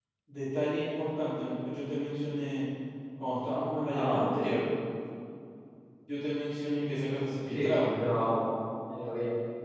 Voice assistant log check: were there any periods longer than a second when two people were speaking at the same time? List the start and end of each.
none

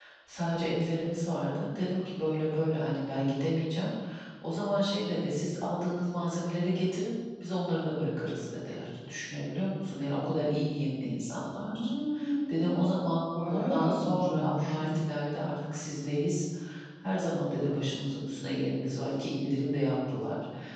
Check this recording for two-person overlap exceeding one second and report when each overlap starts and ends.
13.4-15.0

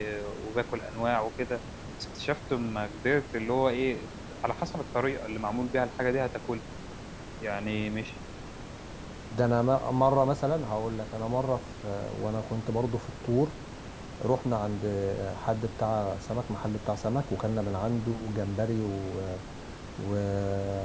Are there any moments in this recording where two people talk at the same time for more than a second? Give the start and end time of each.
none

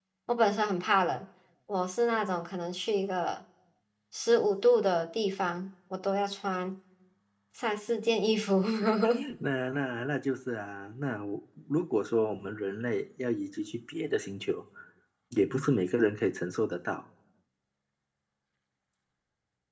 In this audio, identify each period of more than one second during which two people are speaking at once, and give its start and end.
none

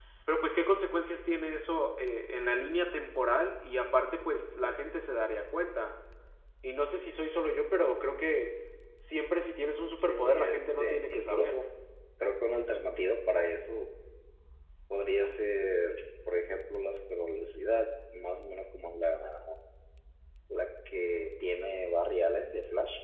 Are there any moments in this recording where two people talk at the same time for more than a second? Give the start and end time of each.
10.0-11.5

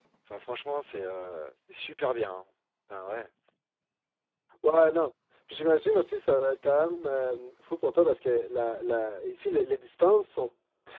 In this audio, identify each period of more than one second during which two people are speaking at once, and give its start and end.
none

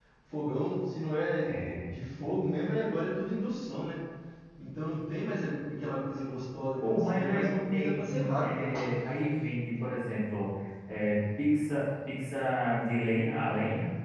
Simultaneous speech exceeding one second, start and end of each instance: 6.8-8.7

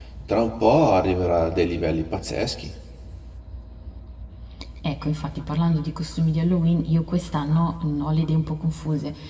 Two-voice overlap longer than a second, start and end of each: none

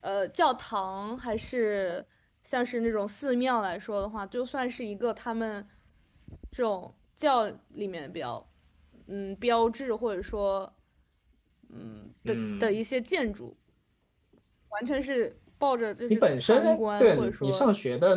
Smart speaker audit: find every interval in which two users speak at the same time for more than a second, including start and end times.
16.1-17.7

